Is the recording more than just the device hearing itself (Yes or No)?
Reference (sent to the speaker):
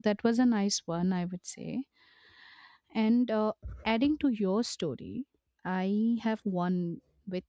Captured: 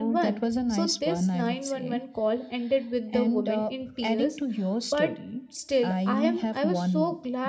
Yes